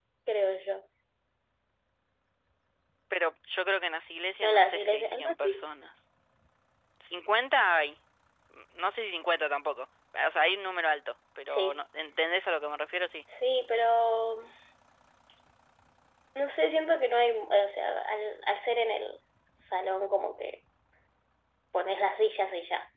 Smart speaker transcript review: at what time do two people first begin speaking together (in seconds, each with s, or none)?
4.4 s